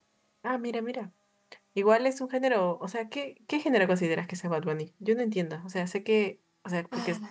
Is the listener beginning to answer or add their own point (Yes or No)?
No